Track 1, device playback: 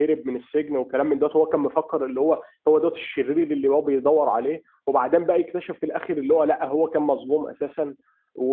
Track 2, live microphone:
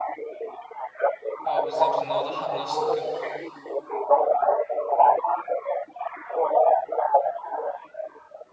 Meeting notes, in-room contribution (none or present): present